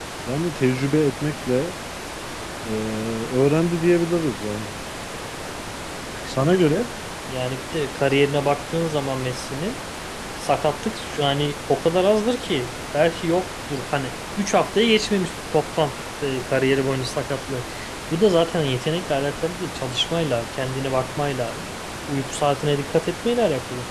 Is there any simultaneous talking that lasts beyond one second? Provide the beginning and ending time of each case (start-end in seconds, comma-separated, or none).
none